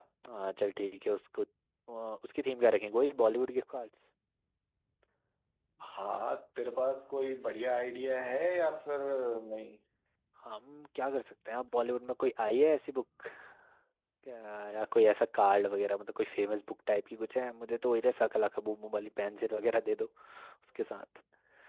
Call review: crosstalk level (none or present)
none